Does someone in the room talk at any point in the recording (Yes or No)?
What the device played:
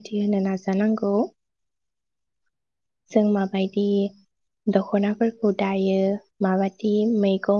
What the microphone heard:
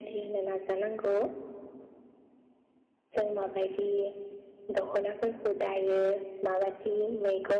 No